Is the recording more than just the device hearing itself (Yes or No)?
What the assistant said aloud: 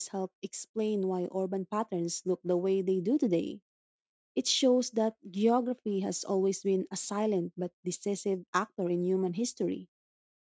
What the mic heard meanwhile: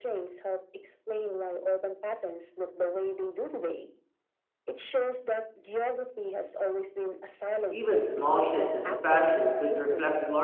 Yes